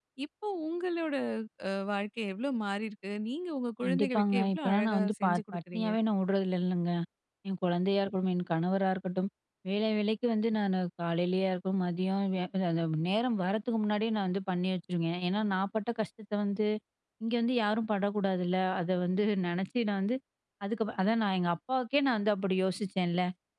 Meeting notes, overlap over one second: present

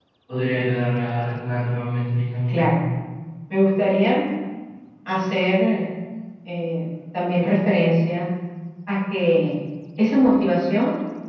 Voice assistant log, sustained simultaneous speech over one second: none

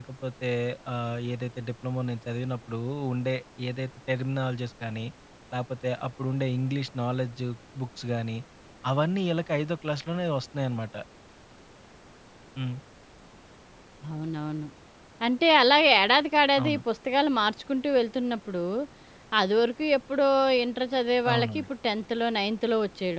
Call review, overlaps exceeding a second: none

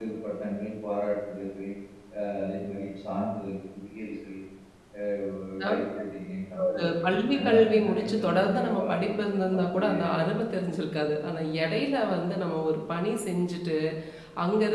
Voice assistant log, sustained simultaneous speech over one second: present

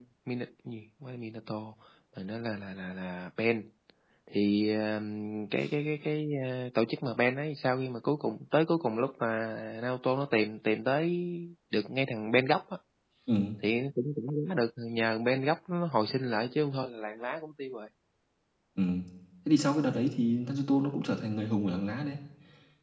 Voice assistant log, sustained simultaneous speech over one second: none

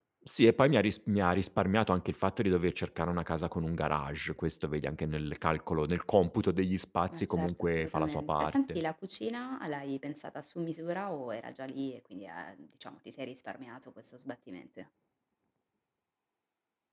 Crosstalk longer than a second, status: present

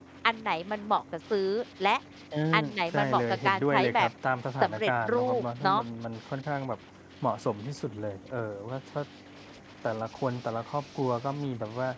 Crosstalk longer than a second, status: present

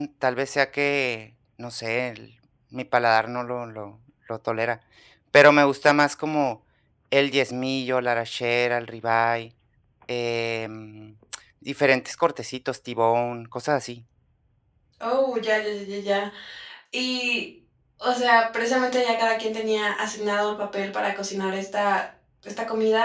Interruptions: none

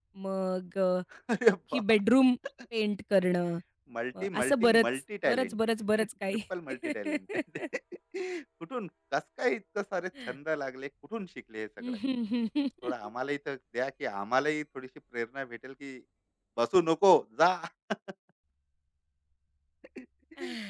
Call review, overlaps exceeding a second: present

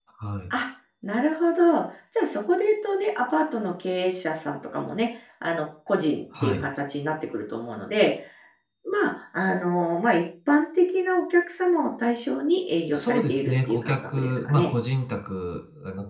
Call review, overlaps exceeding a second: present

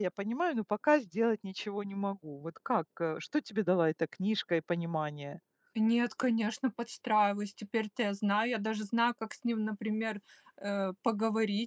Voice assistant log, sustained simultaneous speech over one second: none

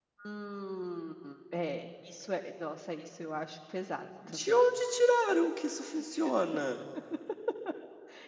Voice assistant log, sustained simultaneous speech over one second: none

